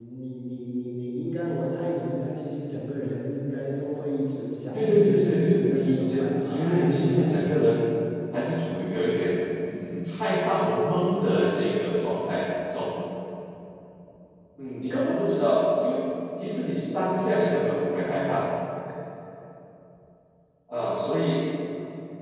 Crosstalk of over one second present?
Yes, from 4.7 s

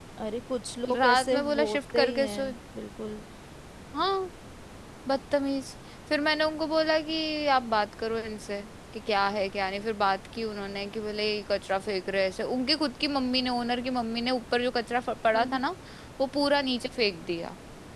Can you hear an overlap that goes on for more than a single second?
Yes, from 1.0 s

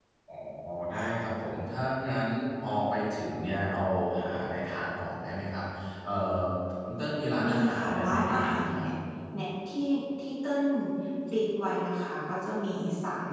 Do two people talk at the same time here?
Yes, from 7.5 s

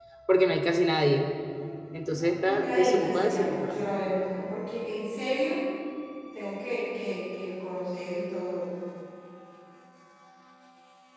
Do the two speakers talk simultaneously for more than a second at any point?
Yes, from 2.4 s

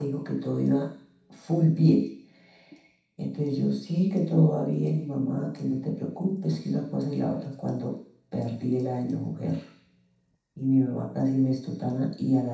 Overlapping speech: No

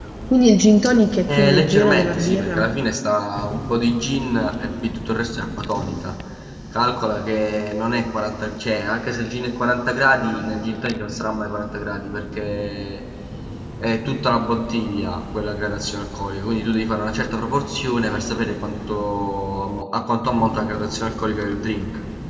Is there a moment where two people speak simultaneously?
Yes, from 1.3 s

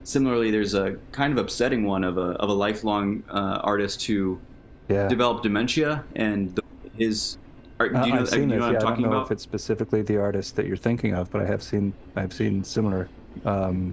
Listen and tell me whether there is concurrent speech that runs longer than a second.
Yes, from 7.9 s

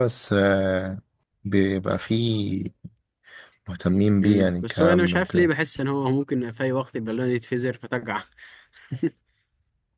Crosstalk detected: Yes, from 4.2 s

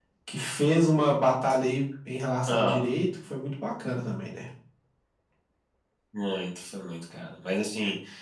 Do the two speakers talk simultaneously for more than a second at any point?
No

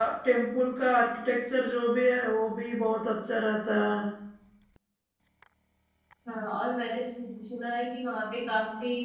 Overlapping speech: No

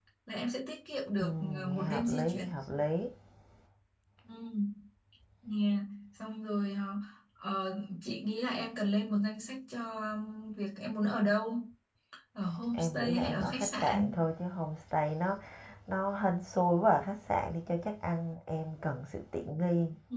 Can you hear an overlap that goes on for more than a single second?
Yes, from 1.2 s

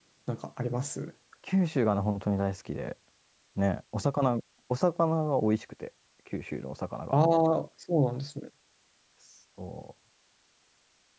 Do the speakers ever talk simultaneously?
No

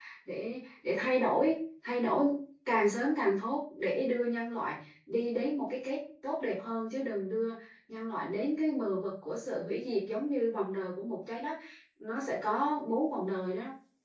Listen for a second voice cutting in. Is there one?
No

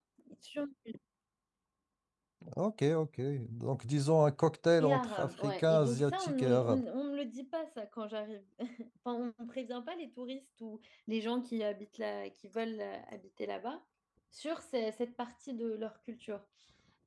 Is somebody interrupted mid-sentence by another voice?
Yes, from 4.8 s

